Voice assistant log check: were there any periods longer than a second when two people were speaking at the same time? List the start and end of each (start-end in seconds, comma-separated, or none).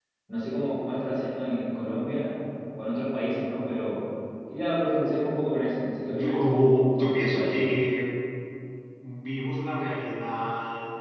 6.1-7.7